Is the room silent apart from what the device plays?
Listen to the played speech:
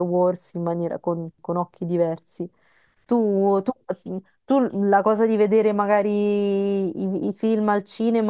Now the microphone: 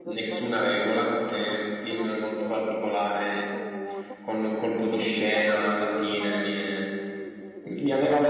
No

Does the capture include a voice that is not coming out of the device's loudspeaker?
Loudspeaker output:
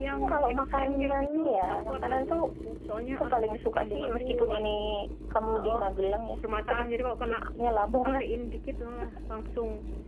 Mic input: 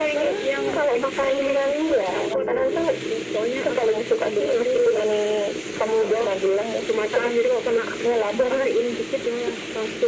No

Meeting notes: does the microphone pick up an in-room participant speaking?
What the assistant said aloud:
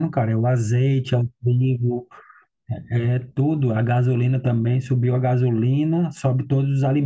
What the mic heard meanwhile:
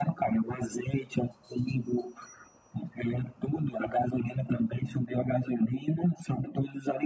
No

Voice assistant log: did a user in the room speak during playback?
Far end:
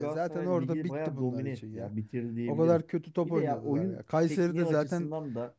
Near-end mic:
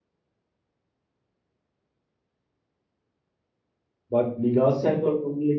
Yes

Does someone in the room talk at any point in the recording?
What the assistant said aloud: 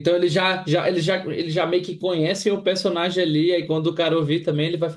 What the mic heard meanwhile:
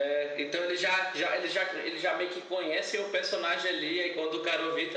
No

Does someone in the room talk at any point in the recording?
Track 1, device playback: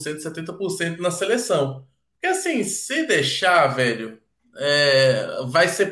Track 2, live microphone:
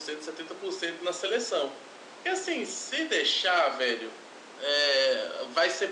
No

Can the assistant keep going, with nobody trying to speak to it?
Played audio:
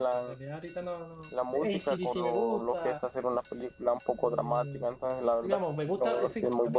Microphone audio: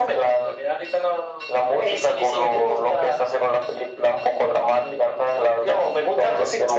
Yes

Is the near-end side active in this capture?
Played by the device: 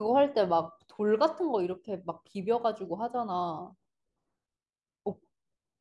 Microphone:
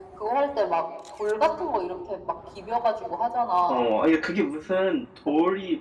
Yes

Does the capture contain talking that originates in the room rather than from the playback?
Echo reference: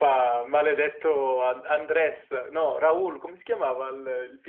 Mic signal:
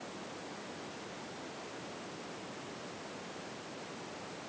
No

